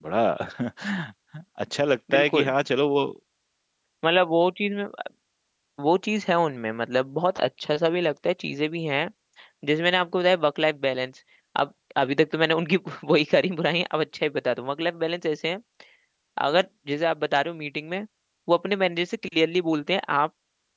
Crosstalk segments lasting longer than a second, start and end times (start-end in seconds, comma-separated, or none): none